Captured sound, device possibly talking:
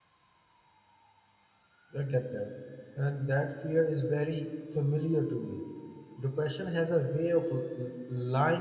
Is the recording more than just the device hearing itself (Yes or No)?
Yes